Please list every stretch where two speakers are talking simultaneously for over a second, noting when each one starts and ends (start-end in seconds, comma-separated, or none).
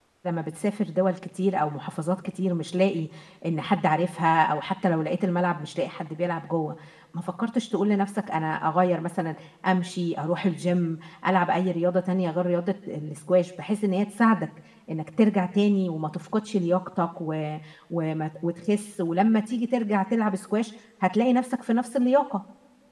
none